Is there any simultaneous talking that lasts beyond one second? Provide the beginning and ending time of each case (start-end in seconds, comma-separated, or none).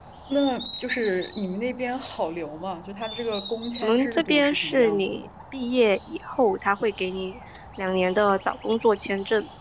3.8-5.3